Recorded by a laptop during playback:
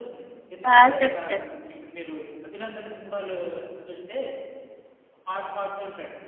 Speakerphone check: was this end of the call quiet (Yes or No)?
No